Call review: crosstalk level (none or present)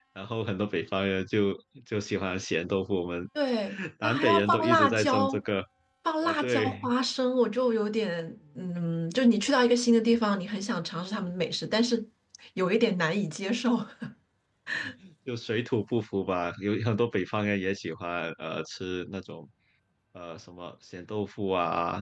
present